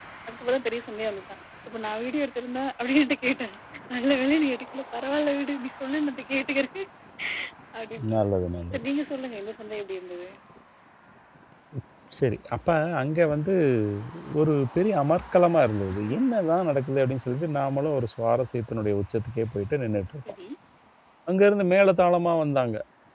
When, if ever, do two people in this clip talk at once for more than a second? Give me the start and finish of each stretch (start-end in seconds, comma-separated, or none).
none